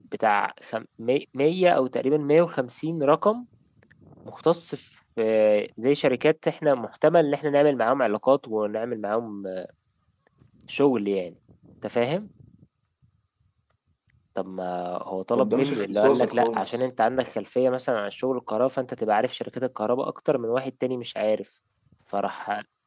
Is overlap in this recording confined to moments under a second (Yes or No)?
No